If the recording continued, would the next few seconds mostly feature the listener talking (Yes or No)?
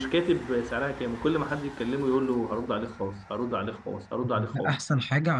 Yes